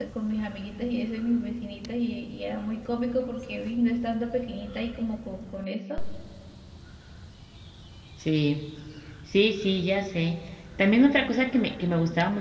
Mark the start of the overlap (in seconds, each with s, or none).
none